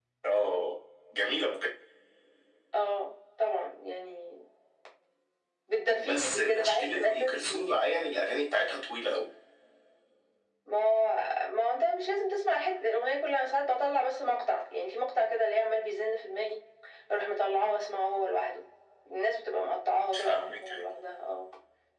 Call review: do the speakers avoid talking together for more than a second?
No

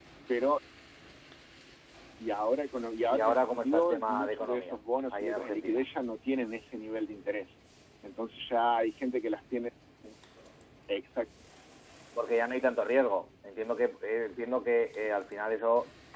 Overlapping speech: Yes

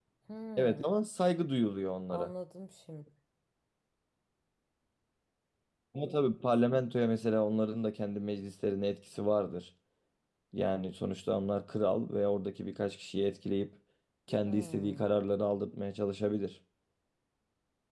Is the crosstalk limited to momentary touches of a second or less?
Yes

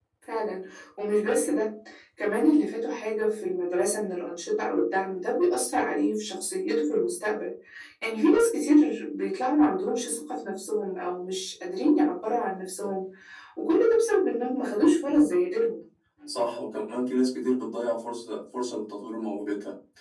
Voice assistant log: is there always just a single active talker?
Yes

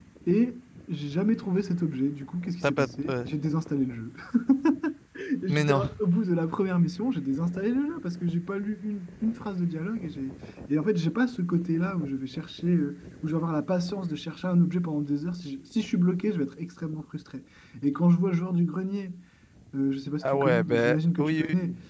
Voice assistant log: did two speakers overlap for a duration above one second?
Yes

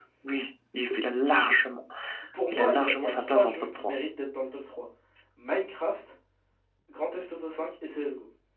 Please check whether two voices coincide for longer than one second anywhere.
Yes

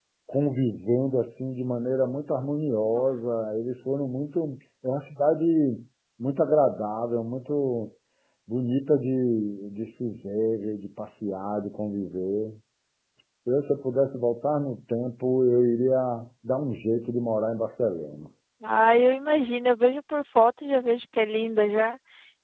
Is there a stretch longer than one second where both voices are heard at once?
No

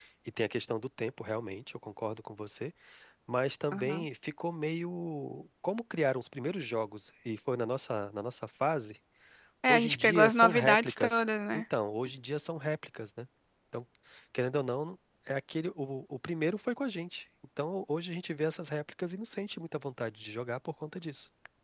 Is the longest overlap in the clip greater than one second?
Yes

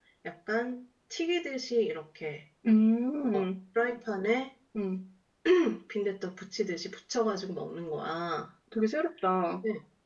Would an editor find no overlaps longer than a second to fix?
Yes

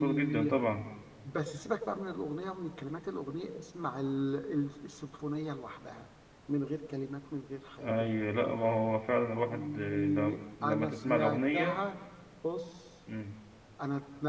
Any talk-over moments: Yes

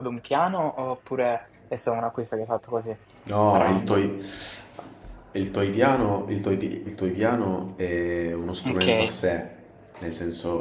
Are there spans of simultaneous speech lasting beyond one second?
No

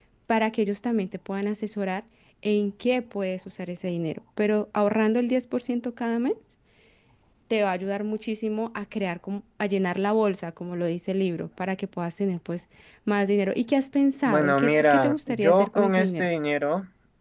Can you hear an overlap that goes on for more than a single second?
Yes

